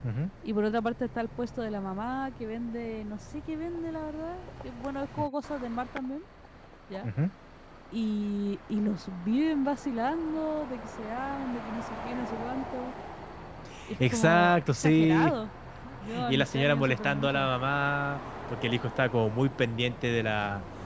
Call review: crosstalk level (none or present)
present